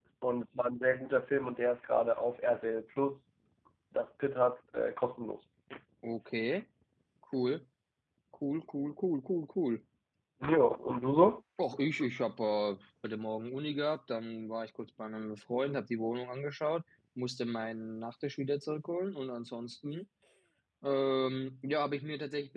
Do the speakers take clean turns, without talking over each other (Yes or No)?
Yes